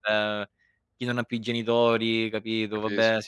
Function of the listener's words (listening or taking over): listening